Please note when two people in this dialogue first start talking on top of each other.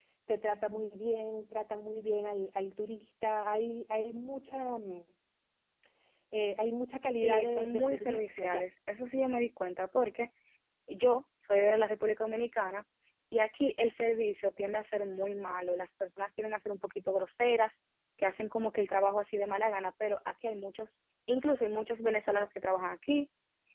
7.2 s

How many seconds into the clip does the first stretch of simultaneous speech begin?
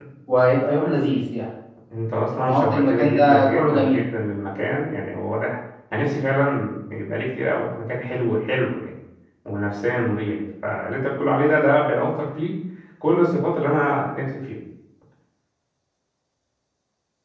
2.4 s

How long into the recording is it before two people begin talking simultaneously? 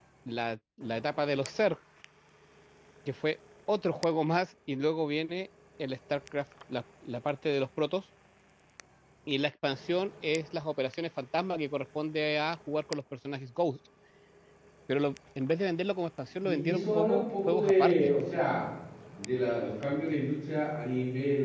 16.4 s

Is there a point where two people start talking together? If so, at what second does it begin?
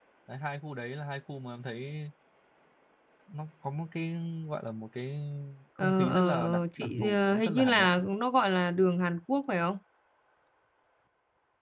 5.8 s

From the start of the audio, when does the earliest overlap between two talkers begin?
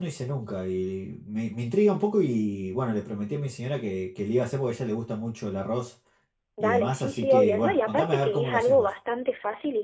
6.6 s

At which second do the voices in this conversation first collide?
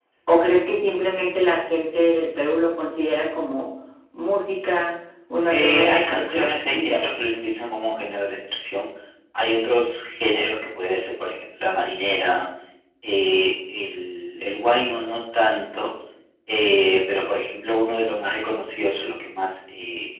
5.5 s

